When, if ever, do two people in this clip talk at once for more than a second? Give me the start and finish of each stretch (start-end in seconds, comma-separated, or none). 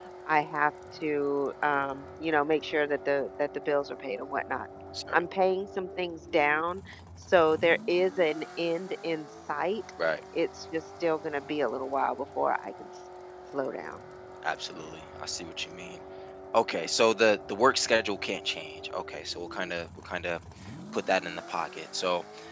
none